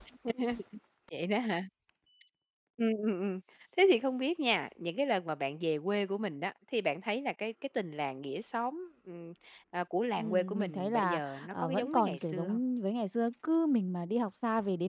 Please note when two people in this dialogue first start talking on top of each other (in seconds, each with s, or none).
10.2 s